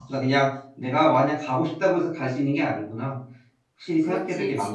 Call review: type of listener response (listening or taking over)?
taking over